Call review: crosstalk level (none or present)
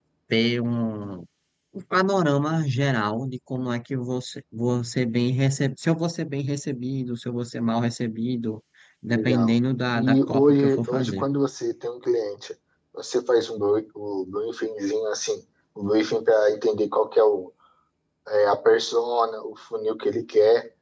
present